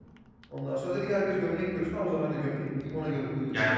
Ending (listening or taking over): taking over